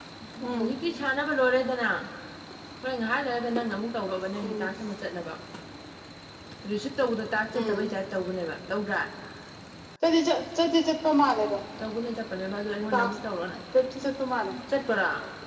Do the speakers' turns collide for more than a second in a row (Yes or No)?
No